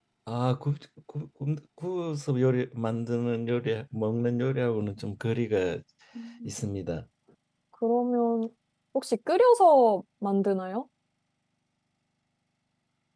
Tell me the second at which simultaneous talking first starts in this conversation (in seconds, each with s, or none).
none